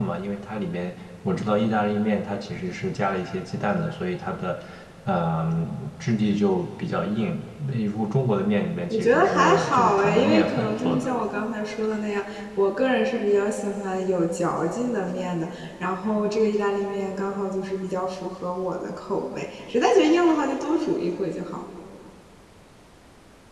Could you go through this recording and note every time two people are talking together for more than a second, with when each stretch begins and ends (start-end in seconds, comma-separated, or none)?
8.9-11.2